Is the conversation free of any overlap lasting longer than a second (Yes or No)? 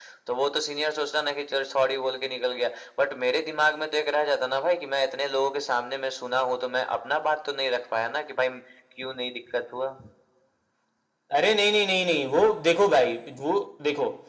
Yes